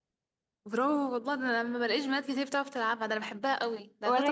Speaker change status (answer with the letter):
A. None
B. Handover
B